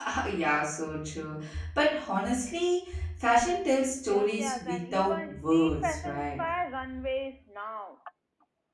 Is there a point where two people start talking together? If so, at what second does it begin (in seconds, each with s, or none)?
4.1 s